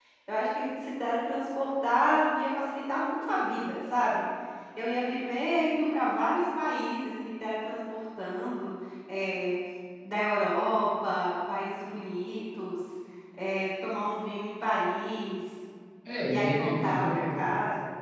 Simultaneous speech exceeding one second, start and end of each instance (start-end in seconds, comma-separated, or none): 16.3-17.5